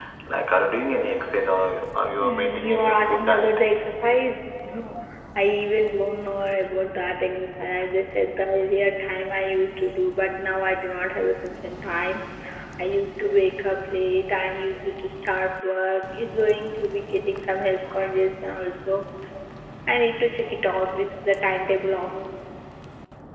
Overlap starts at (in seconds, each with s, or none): 2.2 s